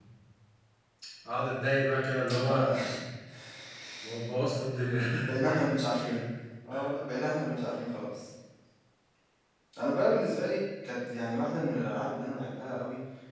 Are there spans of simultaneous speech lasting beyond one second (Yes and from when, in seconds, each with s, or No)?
No